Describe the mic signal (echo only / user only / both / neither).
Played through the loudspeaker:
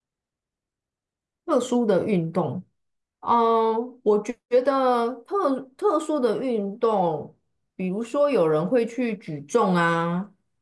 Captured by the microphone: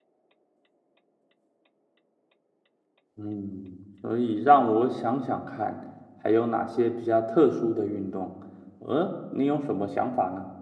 user only